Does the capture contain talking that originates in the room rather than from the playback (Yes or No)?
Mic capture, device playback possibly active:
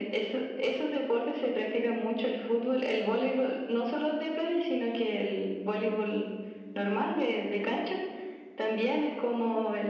No